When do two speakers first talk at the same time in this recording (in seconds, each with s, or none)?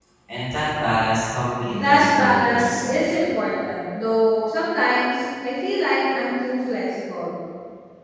1.7 s